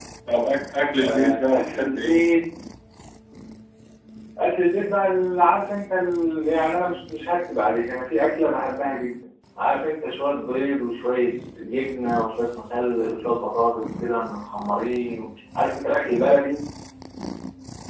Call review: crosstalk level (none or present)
present